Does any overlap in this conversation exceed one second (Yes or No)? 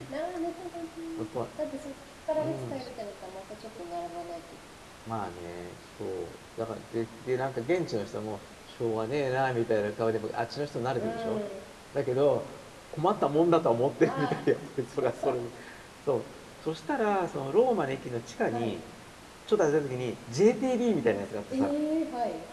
No